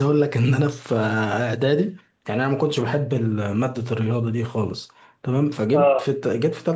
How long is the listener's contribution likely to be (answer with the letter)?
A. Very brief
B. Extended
A